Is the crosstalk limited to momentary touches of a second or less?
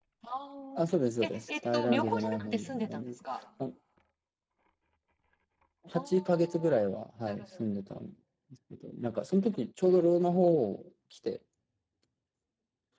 No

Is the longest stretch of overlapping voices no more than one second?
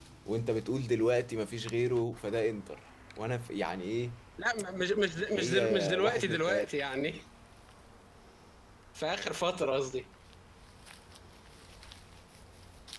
No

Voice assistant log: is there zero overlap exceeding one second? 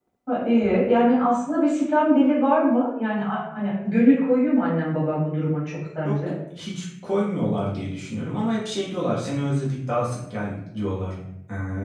Yes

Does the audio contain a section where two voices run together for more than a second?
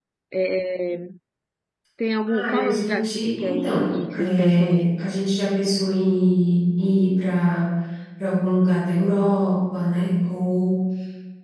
Yes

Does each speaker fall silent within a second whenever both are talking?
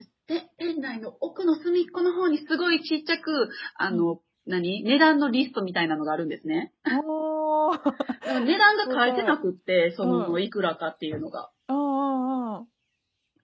Yes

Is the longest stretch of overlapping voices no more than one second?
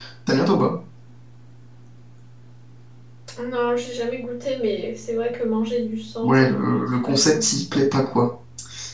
No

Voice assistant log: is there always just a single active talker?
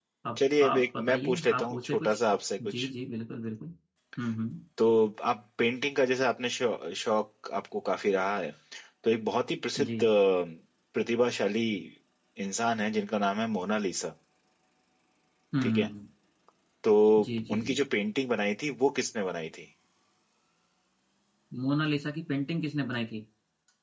No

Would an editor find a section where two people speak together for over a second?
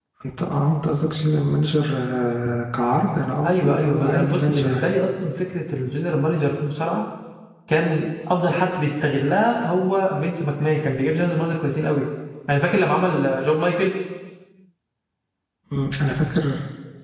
Yes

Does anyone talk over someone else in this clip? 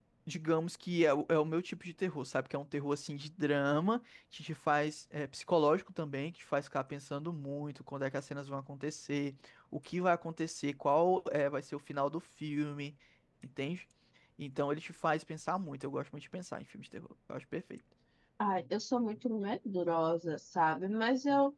No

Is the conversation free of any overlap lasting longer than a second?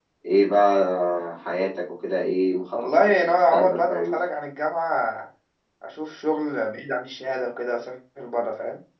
No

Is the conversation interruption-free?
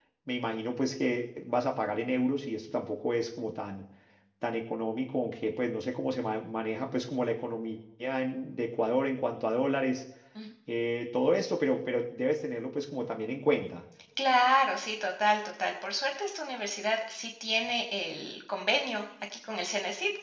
Yes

